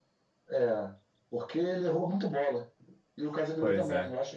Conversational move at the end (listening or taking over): listening